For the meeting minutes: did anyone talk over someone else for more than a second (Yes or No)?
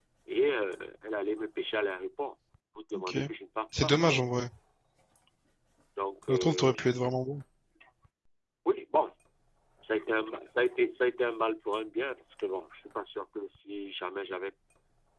No